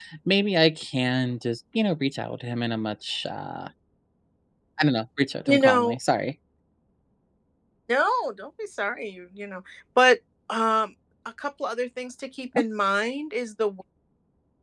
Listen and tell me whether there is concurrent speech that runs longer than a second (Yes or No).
No